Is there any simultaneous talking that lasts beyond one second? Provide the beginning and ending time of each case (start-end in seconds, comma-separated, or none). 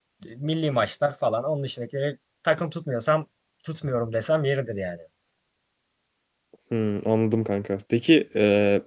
none